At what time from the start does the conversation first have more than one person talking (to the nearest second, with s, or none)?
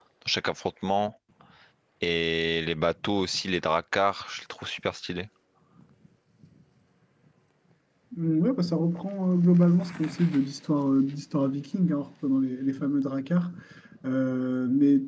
none